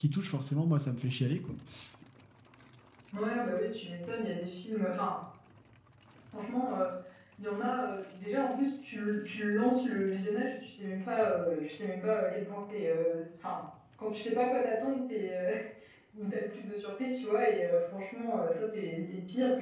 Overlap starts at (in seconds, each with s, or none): none